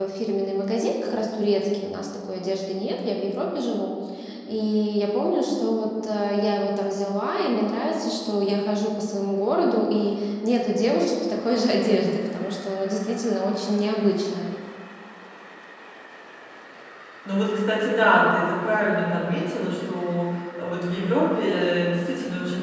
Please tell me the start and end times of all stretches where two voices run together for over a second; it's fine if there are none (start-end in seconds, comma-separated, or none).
none